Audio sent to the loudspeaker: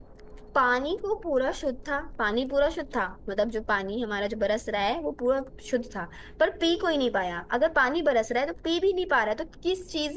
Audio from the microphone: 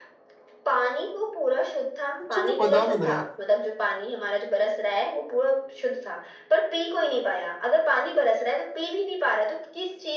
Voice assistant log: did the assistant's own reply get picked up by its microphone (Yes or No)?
Yes